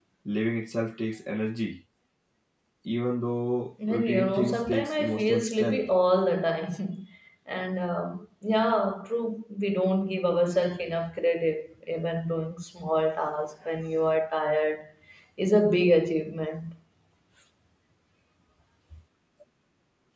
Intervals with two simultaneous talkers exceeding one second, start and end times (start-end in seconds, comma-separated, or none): 3.9-5.9